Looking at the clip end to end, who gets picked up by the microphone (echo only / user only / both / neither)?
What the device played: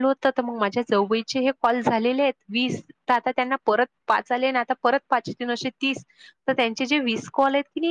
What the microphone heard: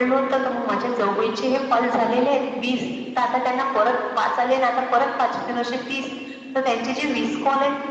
echo only